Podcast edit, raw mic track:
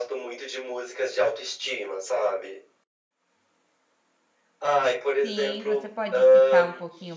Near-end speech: present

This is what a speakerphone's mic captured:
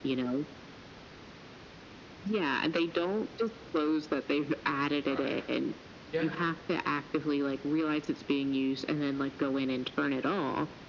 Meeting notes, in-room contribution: present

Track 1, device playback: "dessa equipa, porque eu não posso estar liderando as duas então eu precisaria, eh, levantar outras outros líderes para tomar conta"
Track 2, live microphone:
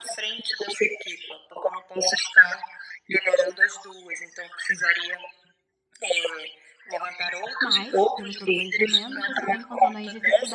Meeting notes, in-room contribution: present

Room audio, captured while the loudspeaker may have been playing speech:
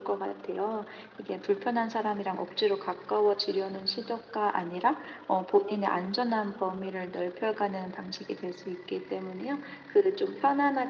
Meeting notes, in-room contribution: none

